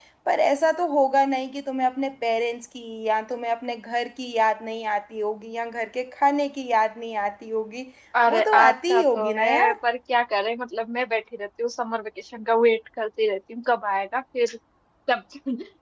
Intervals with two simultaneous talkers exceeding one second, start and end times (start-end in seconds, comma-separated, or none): 8.3-9.7